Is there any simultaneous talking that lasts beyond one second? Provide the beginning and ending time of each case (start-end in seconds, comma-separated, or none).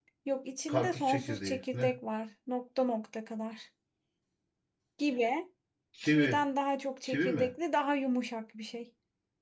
0.7-1.9